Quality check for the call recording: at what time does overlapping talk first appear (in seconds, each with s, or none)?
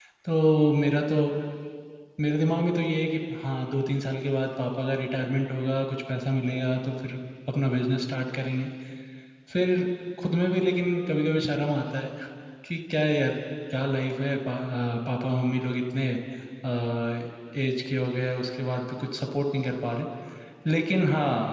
none